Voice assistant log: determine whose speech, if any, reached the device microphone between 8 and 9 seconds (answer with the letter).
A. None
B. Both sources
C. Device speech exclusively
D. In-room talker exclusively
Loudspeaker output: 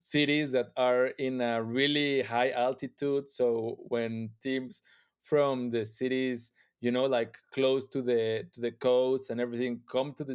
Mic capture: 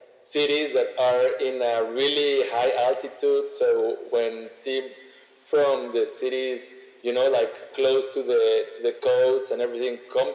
C